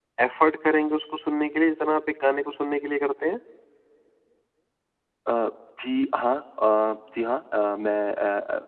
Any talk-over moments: No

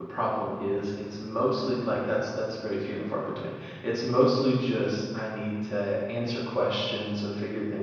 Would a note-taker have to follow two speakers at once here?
No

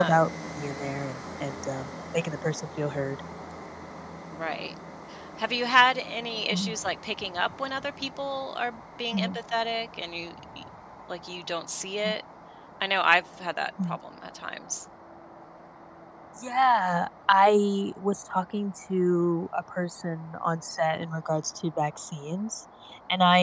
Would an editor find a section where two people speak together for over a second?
No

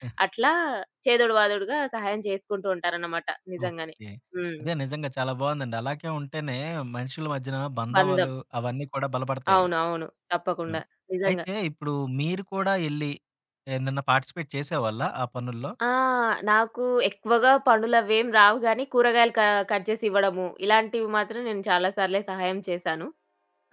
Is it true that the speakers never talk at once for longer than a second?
Yes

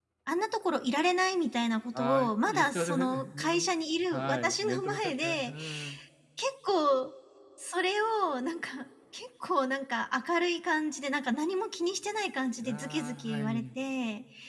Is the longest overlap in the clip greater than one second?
Yes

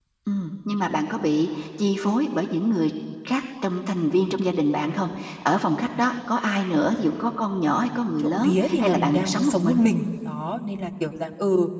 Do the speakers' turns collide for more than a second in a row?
Yes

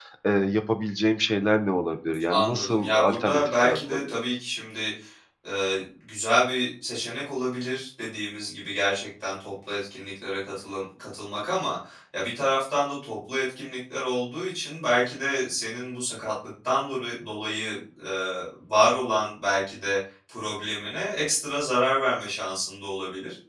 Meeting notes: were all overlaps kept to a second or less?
No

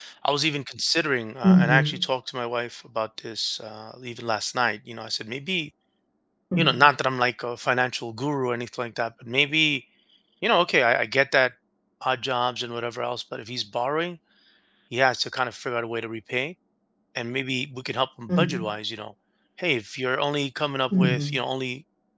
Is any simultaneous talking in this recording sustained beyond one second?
No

